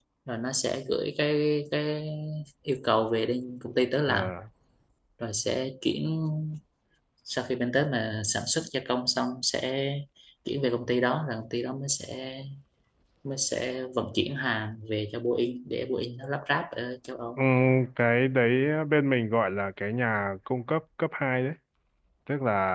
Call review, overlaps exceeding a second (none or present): none